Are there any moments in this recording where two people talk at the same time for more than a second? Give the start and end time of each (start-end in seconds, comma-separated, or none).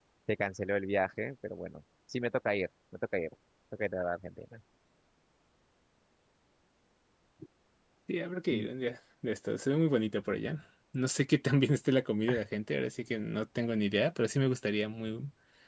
none